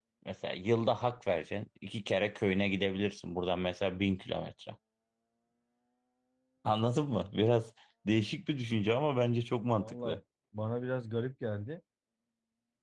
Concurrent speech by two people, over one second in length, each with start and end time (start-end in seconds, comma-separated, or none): none